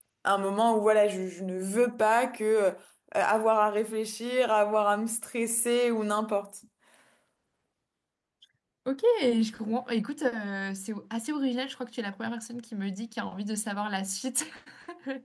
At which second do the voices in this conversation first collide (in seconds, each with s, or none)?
none